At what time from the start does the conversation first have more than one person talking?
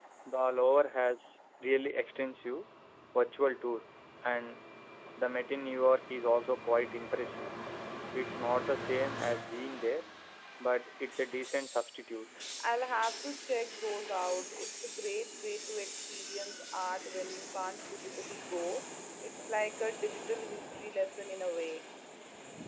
none

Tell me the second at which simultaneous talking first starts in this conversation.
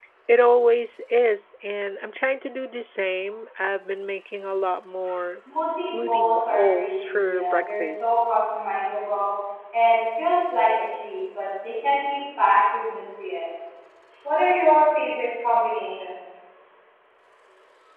6 s

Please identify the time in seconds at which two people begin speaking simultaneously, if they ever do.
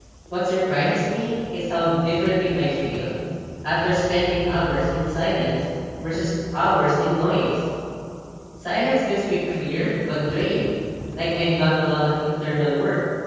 none

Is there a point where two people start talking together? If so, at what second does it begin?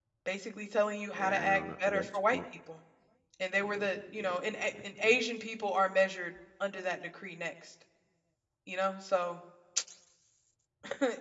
1 s

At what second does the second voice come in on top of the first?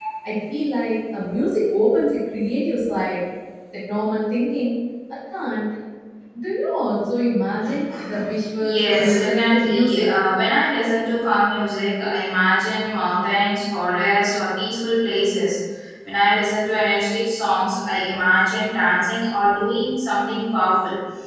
9 s

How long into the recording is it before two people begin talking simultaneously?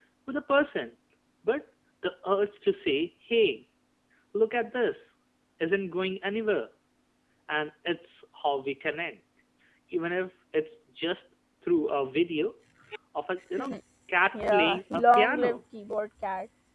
14 s

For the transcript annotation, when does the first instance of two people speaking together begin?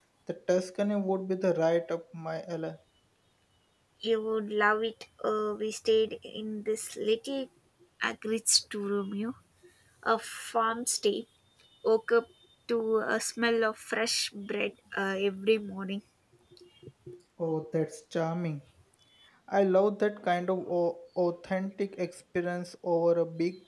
none

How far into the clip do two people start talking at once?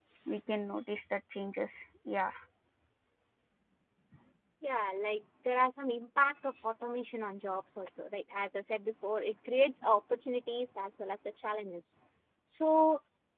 none

